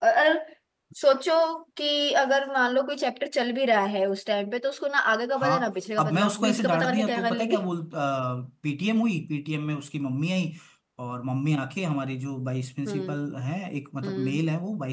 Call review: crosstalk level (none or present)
present